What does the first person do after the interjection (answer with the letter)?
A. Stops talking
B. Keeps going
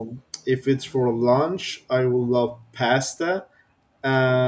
B